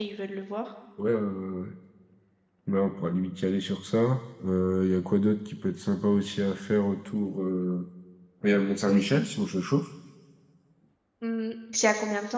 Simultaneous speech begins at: none

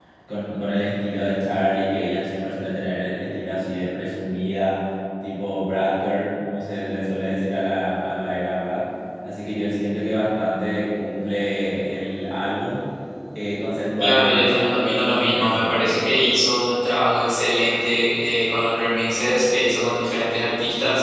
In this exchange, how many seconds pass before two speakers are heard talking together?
14.0 s

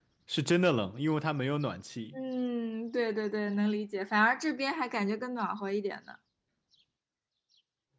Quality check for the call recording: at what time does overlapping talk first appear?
none

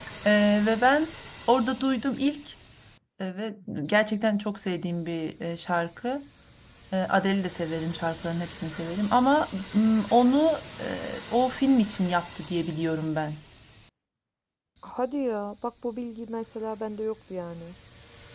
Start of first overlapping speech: none

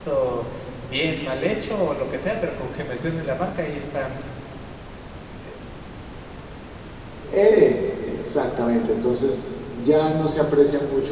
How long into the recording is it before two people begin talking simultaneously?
none

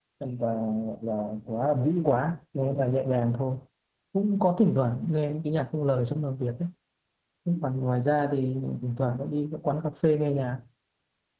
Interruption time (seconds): none

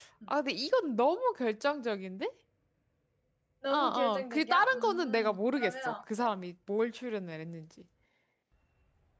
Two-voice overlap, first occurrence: 3.7 s

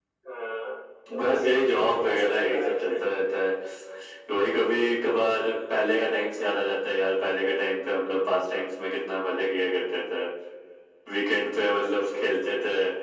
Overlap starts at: 1.2 s

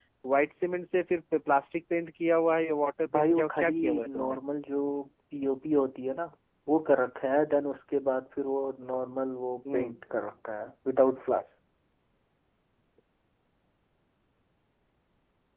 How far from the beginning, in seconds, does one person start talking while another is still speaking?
3.0 s

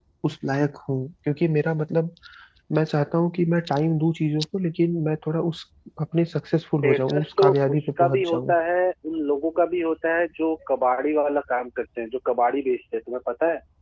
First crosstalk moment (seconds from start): 6.8 s

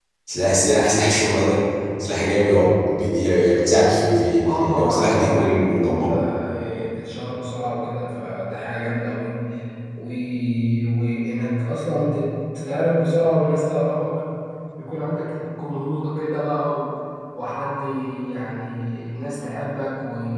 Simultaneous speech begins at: 4.5 s

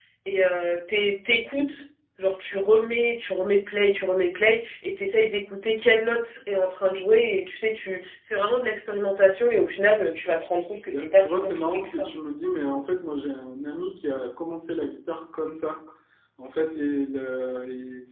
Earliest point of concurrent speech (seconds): 10.8 s

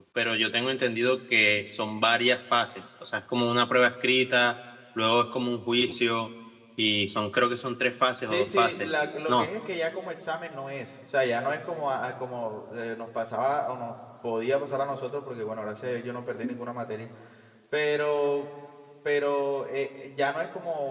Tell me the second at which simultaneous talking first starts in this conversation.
8.3 s

